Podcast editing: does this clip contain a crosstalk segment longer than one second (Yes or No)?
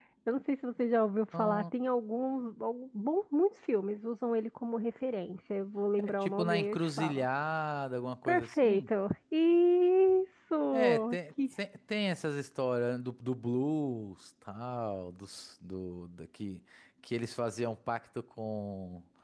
Yes